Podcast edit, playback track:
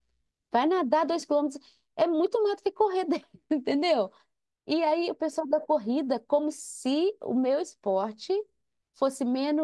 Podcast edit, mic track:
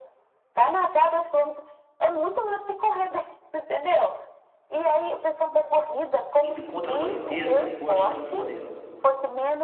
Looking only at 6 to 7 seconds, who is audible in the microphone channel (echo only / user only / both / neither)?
both